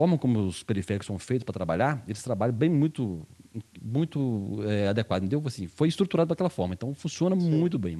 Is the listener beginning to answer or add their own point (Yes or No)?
No